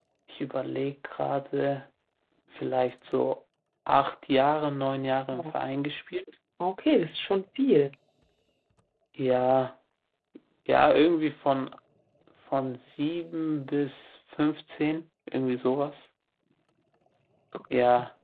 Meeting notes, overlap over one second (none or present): none